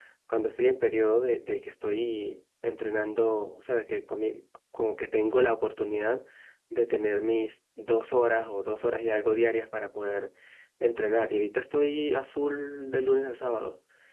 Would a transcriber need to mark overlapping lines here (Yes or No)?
No